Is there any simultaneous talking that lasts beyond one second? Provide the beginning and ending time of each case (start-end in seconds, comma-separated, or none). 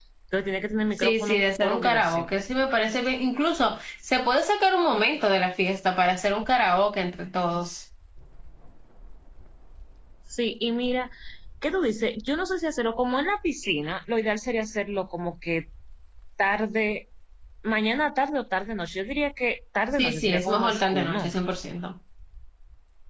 1.0-2.3, 20.0-21.3